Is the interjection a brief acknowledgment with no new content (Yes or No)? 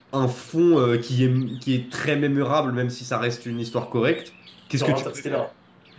Yes